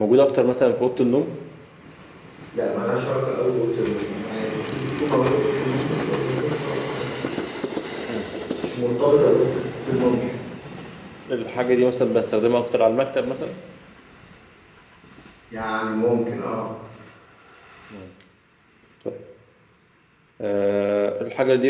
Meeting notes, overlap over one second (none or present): none